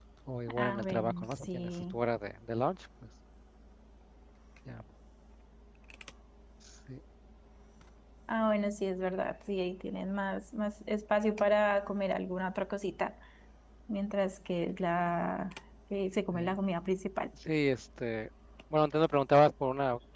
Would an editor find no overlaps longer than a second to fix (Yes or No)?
No